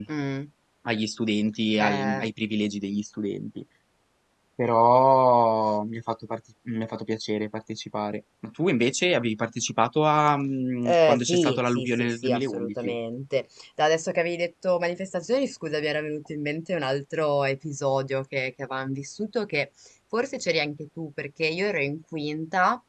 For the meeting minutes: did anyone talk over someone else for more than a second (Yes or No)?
Yes